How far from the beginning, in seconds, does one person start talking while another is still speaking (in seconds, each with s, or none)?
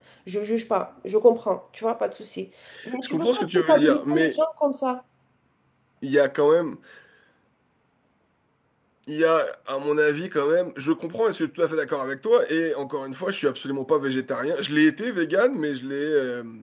3.0 s